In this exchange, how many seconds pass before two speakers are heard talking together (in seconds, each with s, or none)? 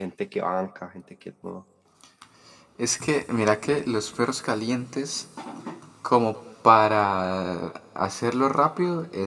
none